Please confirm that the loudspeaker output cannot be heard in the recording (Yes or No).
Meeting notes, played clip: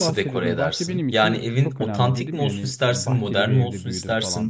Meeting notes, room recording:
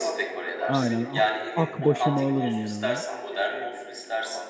No